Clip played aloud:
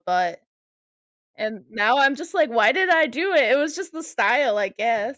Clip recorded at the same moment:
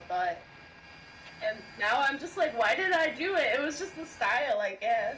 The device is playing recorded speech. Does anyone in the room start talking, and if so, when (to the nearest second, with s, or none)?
none